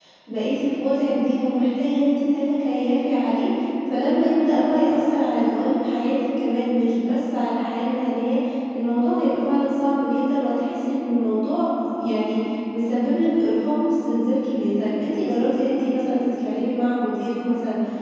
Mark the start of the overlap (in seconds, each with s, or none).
none